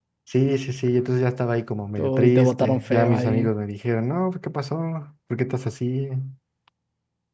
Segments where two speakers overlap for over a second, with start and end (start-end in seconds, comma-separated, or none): 2.0-3.5